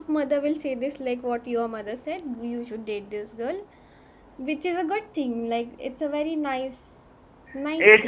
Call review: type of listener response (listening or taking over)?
taking over